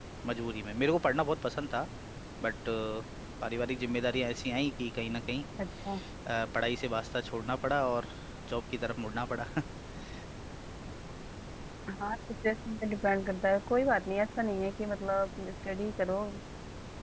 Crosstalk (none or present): none